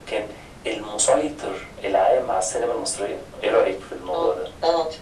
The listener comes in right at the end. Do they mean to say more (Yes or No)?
Yes